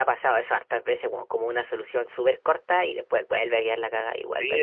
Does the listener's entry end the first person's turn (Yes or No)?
Yes